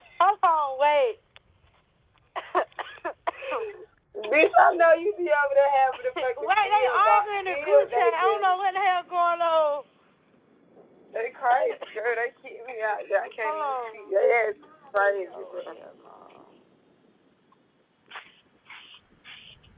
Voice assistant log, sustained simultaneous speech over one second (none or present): present